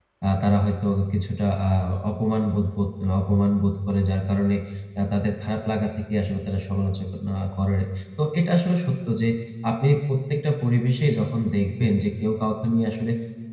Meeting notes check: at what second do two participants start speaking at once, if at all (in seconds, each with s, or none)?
none